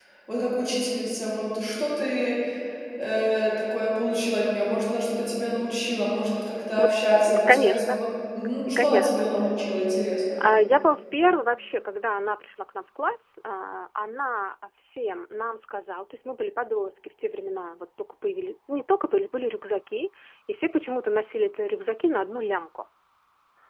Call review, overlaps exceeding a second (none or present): present